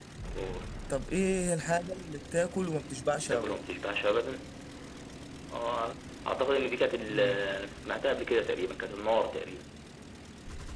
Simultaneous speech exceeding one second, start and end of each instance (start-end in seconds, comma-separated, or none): none